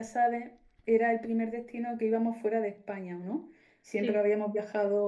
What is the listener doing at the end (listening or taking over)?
listening